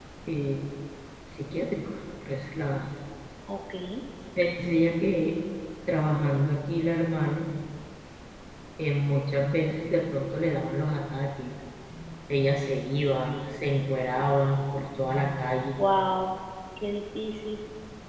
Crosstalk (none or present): none